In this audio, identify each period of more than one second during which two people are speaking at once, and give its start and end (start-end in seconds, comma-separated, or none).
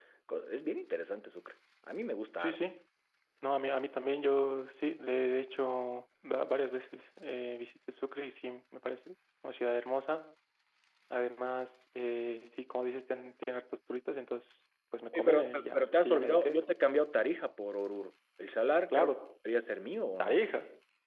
15.1-16.6